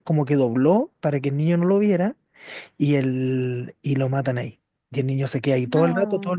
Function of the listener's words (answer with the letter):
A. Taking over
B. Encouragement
B